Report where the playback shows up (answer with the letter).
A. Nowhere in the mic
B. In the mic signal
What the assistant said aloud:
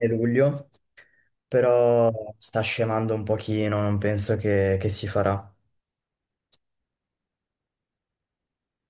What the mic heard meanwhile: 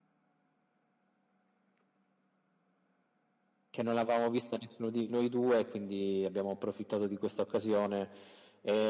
A